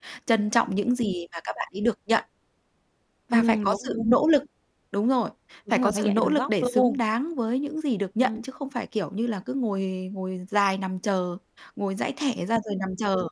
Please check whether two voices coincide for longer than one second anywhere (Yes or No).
Yes